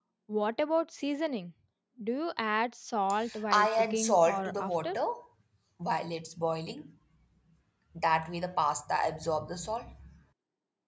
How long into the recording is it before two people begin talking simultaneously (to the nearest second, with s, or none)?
4 s